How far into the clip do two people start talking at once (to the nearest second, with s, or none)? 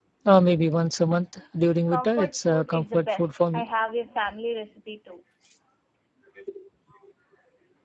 2 s